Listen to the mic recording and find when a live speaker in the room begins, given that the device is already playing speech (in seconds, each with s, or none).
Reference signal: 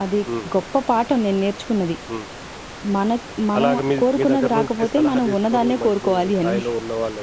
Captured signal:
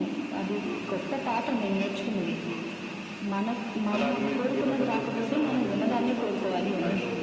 none